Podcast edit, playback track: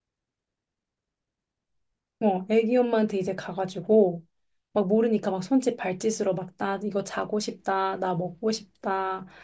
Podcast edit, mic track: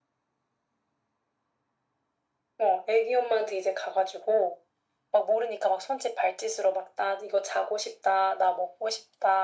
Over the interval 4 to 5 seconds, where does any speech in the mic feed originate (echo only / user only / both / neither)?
echo only